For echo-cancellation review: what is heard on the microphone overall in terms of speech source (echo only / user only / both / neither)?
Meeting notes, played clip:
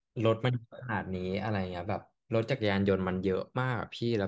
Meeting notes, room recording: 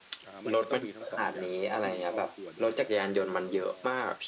both